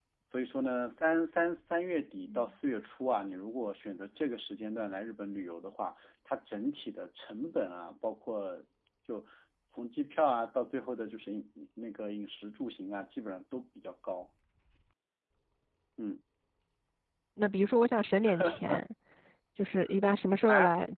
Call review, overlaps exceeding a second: none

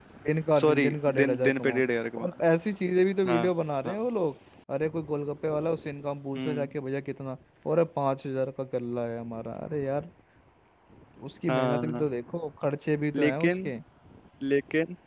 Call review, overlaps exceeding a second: present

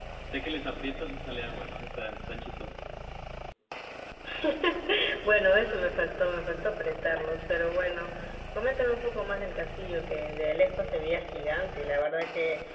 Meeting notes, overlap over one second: none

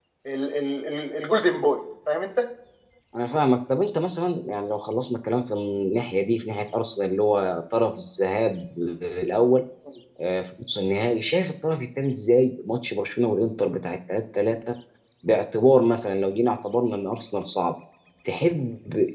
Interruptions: none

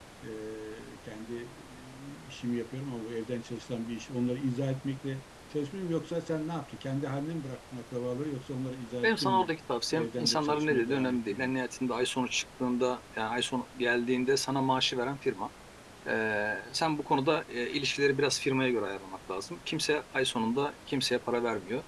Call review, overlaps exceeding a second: present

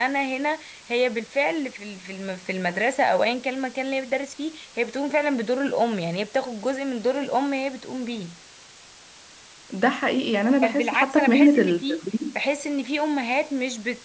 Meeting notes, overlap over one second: present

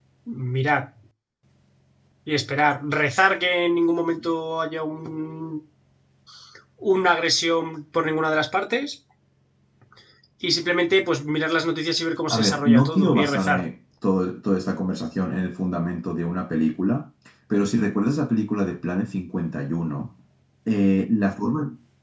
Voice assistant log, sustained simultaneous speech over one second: present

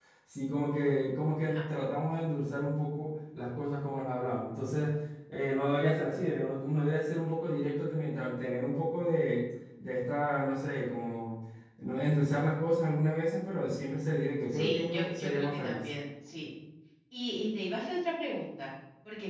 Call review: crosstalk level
present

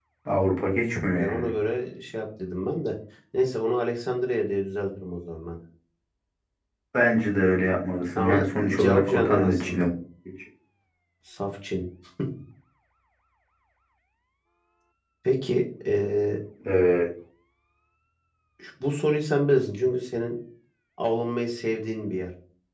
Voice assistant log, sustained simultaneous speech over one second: present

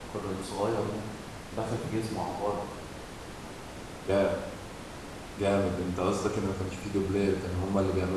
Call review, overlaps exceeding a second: none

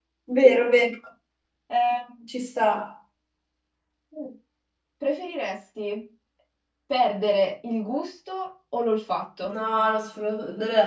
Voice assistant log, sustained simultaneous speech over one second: none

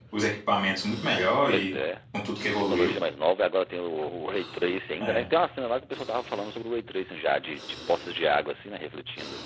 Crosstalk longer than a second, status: none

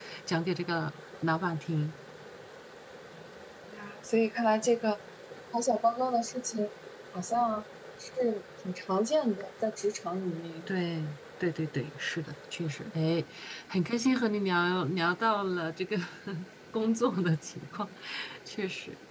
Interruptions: none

